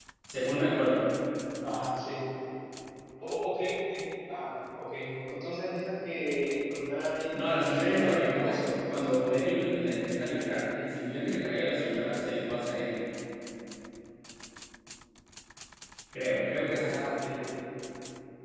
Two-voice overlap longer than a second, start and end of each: 7.4-9.2

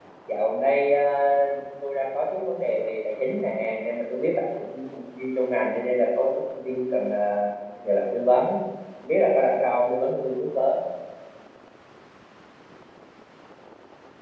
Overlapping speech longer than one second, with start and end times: none

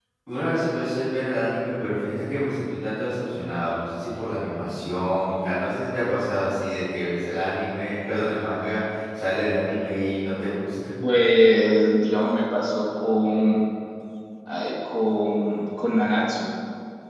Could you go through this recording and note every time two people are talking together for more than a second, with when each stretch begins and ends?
none

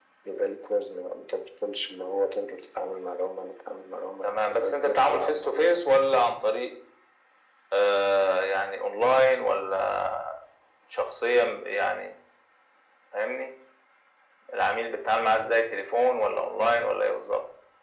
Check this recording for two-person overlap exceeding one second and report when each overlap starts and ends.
4.2-5.8

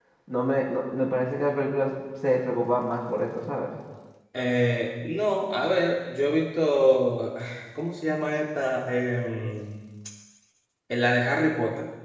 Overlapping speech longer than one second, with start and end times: none

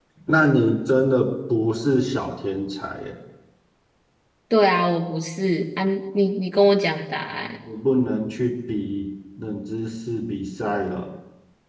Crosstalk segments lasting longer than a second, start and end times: none

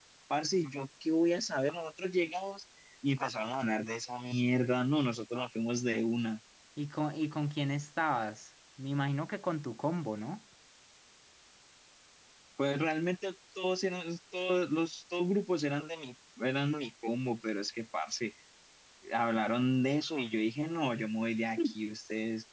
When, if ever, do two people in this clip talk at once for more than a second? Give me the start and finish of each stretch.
none

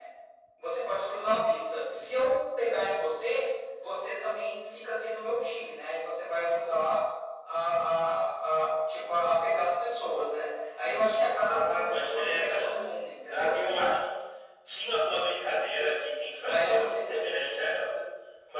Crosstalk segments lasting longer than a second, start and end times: 11.4-12.8

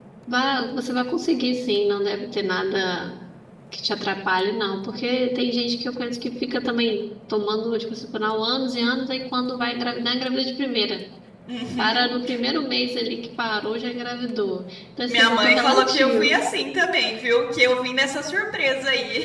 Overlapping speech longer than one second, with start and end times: 15.1-16.4

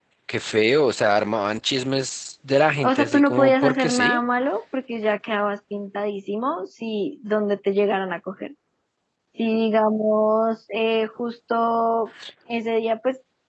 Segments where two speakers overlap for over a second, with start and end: 2.8-4.2

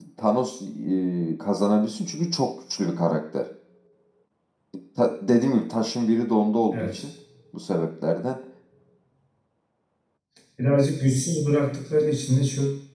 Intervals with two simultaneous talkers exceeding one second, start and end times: none

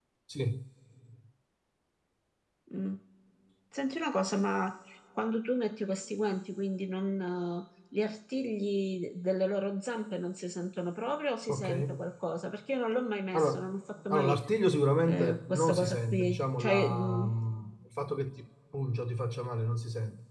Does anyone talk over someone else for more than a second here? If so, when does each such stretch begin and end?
15.0-17.3

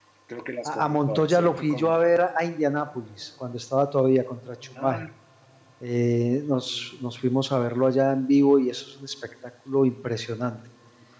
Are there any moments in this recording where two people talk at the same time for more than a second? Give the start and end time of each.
0.7-1.9

